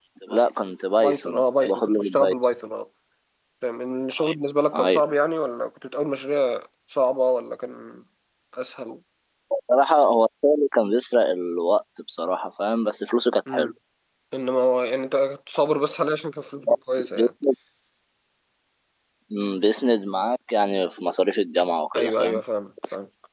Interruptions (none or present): present